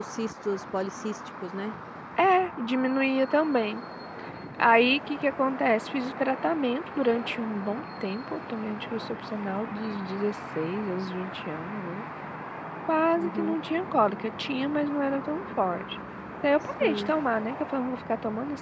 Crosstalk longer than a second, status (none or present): none